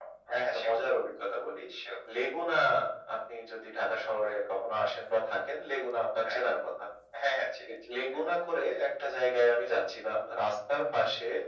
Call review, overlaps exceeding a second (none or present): none